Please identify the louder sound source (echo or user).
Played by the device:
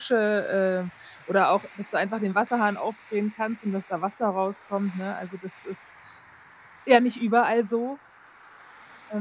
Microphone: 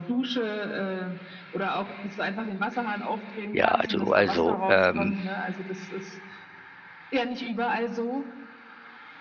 user